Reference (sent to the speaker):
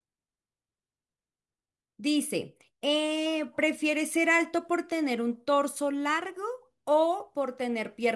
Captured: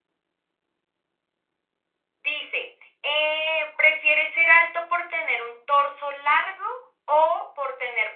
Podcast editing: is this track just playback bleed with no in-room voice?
Yes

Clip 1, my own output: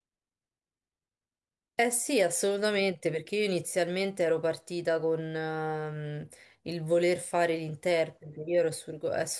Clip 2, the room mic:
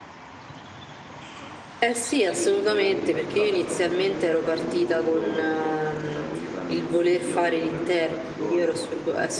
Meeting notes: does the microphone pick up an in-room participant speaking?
Yes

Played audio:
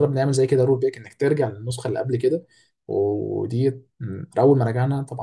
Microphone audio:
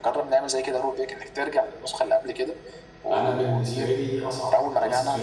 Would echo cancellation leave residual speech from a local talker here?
Yes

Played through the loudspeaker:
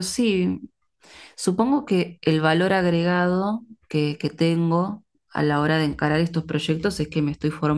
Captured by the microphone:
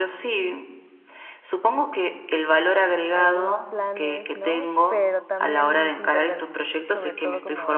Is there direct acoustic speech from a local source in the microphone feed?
Yes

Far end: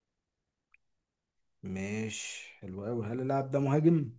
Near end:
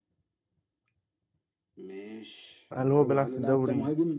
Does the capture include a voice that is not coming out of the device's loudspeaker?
Yes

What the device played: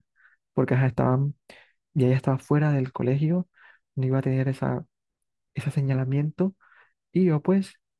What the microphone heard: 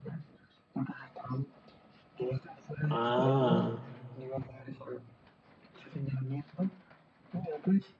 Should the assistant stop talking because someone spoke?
Yes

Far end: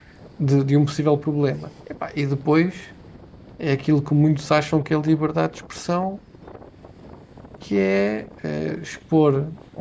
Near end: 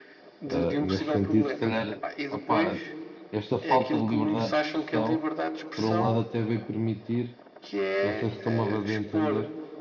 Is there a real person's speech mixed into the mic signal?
Yes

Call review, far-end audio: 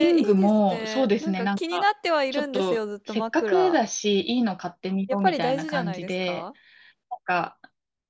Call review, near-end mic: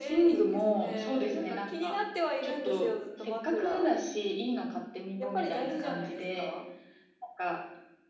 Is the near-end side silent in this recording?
Yes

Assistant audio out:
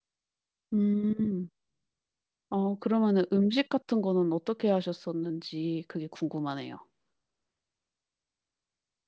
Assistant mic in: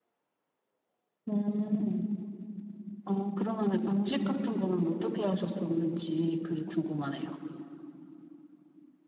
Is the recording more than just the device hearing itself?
No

